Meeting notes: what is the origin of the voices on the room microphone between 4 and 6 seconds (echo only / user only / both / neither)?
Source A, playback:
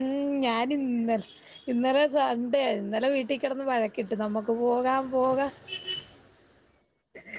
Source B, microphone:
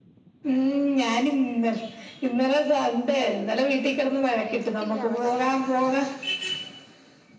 both